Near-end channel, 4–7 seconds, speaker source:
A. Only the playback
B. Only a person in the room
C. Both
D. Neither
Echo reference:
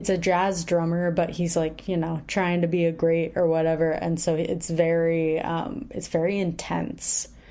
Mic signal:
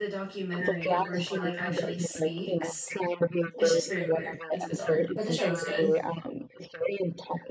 C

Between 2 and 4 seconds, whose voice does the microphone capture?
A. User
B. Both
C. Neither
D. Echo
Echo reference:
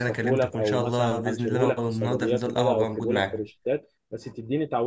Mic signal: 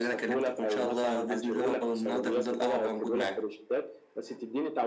D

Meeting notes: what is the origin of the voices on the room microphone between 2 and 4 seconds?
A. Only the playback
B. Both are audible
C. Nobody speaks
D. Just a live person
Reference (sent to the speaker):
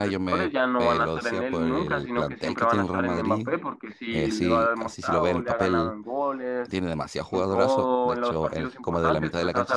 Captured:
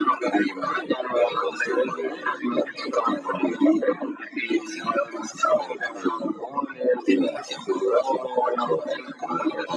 A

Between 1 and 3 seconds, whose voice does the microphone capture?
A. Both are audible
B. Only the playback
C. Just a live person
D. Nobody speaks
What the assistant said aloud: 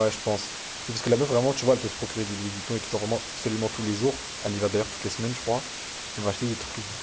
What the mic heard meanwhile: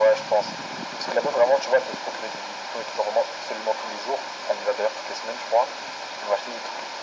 B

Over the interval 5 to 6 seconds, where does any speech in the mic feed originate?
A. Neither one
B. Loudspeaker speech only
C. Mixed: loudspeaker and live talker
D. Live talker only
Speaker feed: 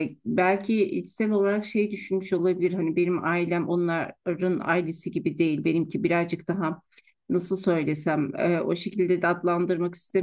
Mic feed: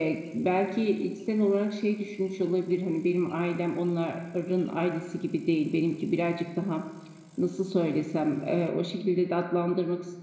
B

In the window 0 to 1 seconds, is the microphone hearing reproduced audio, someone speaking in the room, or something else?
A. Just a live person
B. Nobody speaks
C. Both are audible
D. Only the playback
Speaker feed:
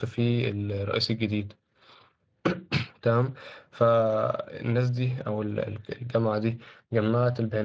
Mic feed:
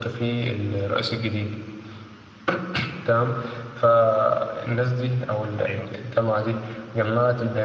D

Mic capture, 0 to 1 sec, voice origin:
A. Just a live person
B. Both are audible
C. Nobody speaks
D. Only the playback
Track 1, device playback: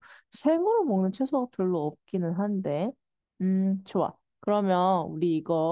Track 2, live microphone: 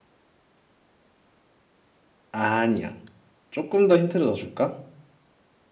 C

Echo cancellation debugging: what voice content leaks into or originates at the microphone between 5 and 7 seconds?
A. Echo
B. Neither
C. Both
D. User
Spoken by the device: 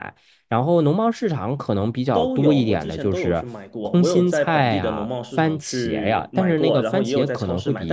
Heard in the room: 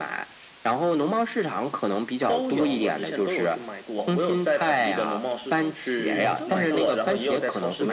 C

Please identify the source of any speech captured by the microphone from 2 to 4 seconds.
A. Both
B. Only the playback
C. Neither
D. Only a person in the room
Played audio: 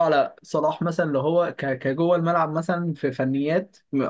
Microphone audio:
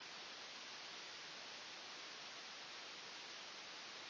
C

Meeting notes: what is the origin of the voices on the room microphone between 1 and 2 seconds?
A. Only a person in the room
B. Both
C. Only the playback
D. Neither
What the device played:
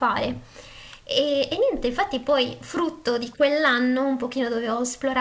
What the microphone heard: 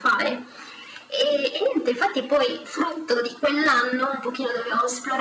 C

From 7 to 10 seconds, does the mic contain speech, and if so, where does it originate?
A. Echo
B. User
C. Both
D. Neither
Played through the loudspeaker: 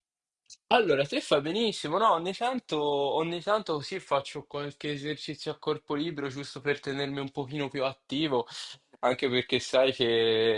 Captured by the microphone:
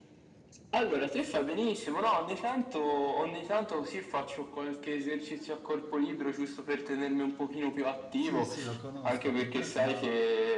C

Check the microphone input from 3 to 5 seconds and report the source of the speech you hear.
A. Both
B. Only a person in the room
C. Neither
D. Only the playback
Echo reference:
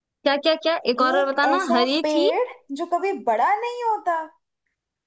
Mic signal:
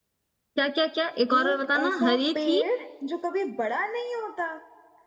D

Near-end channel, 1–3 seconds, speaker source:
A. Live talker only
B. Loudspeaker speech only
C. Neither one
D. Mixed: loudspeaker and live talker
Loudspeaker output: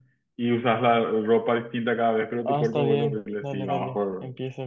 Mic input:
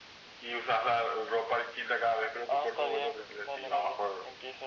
B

